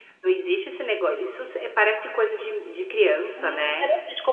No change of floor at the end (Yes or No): No